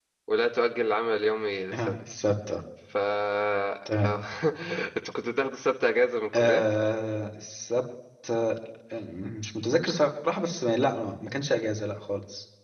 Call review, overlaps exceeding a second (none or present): none